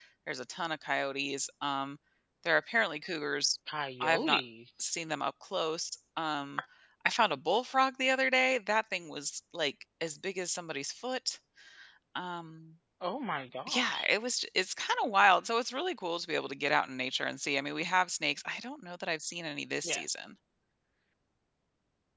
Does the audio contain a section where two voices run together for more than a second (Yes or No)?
No